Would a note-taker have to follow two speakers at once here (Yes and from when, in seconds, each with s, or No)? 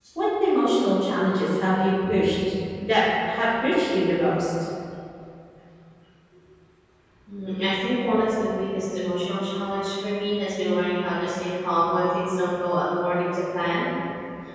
No